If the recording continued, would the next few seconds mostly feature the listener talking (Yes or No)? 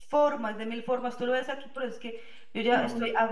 No